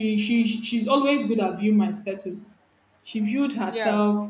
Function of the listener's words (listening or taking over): listening